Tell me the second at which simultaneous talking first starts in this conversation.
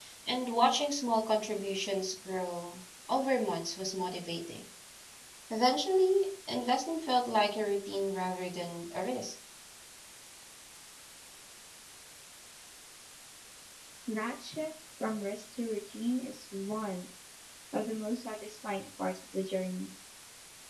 none

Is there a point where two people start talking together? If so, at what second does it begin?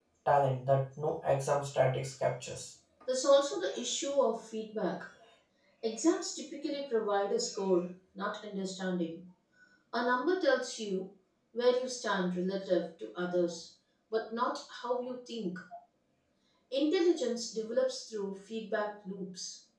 none

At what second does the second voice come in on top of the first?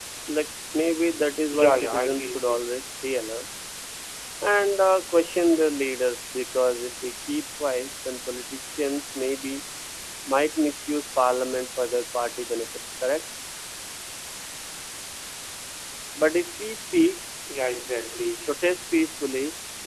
2 s

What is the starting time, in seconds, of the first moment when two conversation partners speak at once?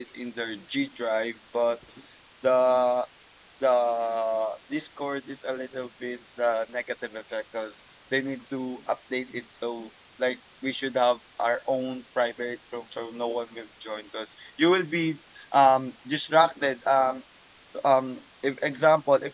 none

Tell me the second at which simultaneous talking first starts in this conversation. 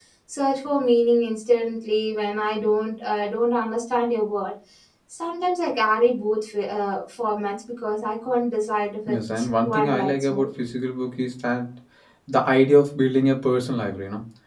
9 s

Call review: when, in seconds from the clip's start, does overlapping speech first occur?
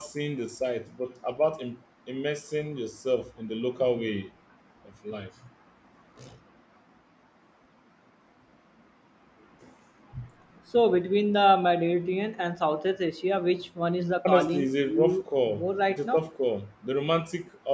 14 s

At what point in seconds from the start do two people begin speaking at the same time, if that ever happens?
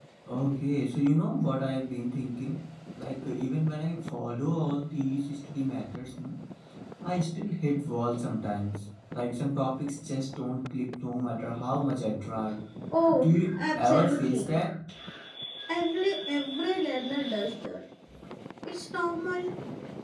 13 s

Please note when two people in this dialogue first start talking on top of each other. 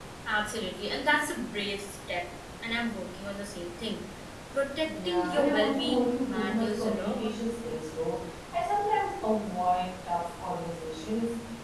5 s

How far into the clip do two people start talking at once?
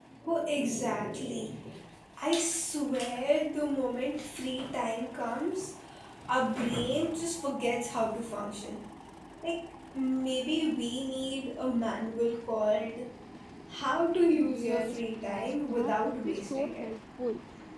14 s

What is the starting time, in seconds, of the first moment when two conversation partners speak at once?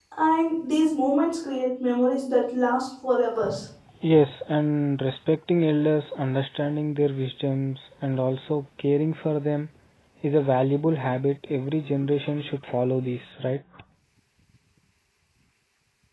none

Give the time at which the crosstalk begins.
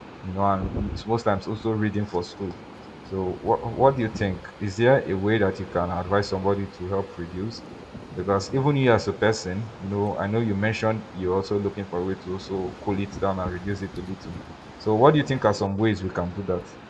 none

